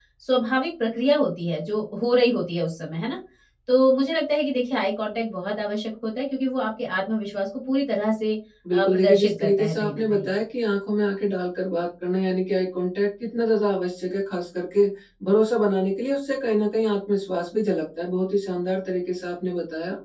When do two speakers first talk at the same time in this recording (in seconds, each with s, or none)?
8.6 s